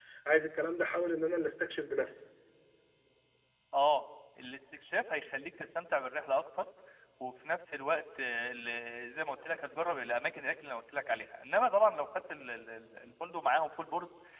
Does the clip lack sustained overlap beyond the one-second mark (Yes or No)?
Yes